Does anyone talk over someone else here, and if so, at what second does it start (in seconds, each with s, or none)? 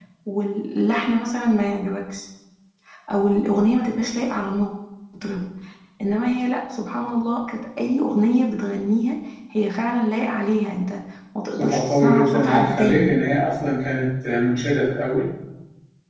11.5 s